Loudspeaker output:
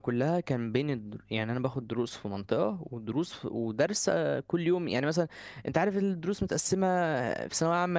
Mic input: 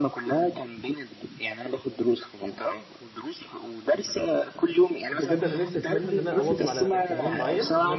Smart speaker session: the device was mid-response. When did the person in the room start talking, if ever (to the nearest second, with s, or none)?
5 s